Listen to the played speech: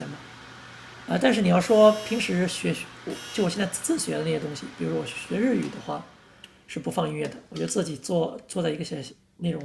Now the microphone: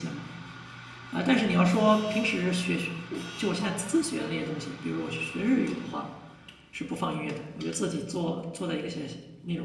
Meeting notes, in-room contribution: present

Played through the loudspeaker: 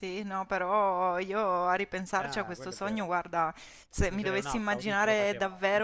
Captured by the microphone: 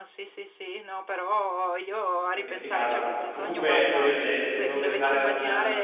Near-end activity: present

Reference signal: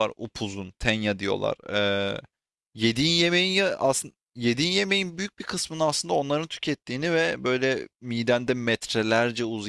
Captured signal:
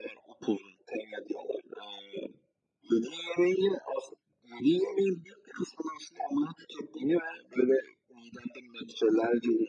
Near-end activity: none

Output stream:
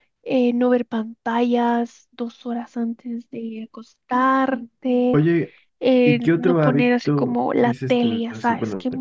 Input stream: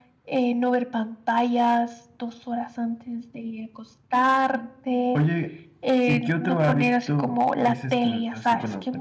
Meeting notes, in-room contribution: none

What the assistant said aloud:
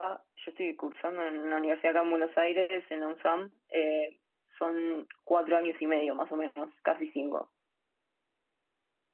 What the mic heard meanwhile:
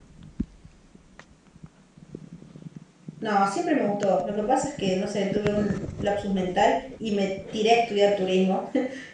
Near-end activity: present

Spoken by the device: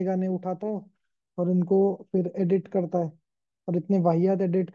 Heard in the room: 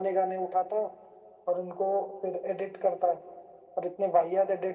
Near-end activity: none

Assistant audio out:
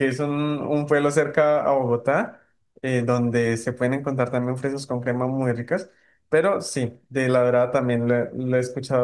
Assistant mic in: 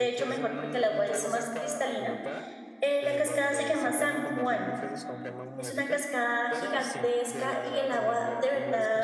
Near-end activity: present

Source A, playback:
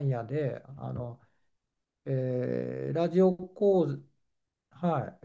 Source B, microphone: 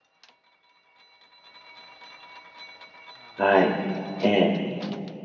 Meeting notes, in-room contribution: present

